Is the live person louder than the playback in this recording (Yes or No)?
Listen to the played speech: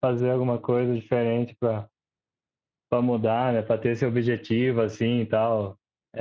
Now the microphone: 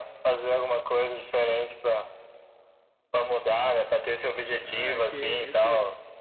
No